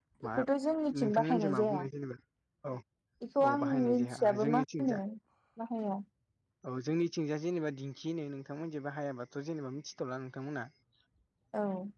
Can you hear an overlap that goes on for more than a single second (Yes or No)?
Yes